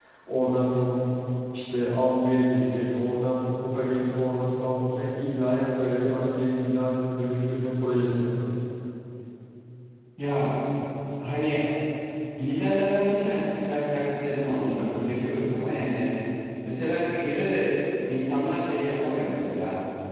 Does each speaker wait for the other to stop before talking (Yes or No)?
Yes